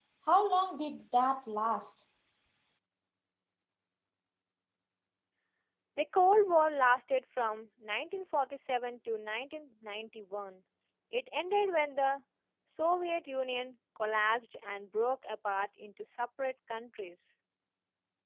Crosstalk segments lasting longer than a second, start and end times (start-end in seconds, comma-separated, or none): none